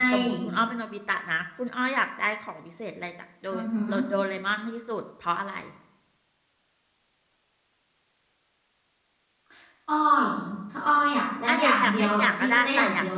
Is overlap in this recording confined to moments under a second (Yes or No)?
No